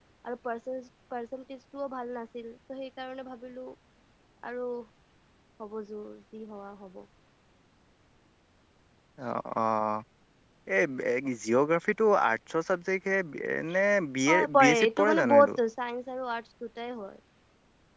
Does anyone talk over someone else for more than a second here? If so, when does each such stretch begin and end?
14.3-15.6

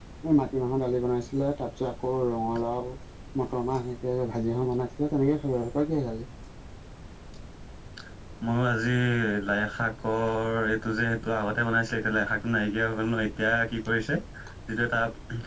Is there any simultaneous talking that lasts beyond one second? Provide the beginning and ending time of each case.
none

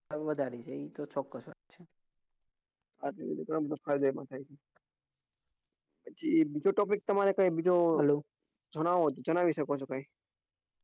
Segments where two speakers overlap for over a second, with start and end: none

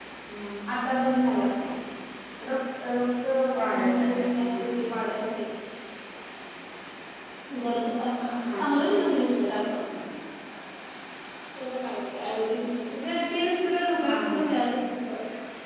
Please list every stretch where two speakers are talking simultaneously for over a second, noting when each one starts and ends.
3.6-4.9

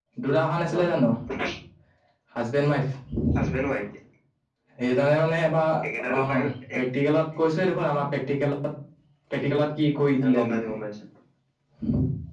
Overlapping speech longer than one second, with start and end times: none

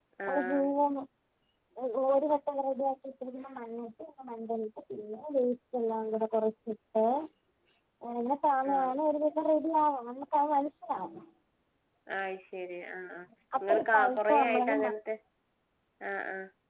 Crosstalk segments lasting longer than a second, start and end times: 13.6-14.9

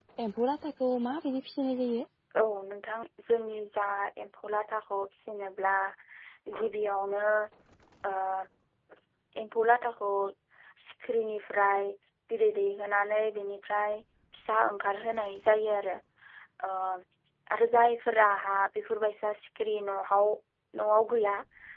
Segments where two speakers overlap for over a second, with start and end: none

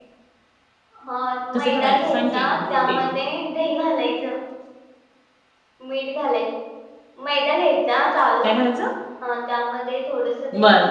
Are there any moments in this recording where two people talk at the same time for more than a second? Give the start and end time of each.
1.6-3.0

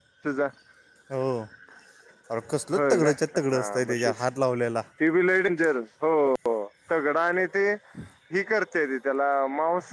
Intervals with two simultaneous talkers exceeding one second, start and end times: none

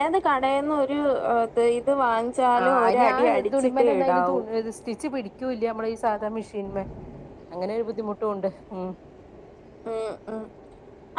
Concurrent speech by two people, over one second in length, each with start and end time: 2.6-4.4

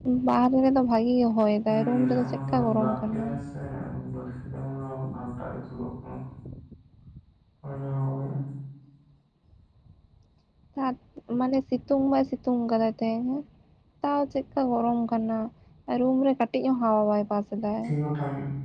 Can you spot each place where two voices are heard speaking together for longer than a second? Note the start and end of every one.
1.7-3.2

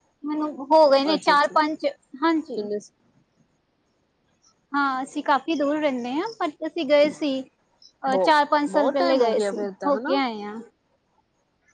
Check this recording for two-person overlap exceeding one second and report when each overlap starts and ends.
8.7-10.1

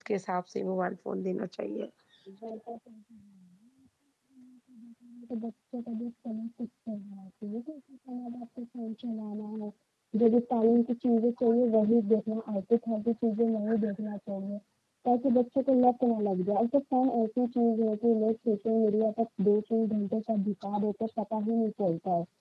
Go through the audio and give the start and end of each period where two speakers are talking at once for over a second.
none

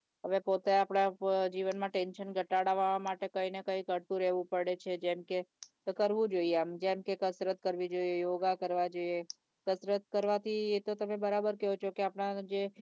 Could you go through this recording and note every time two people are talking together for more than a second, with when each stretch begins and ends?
none

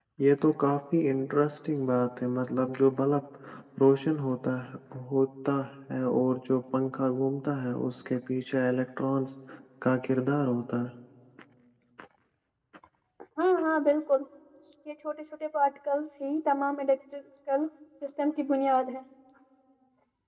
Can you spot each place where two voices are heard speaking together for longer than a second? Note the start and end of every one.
none

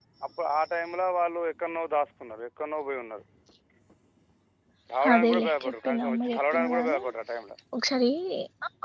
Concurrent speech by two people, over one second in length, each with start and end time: 5.1-7.0

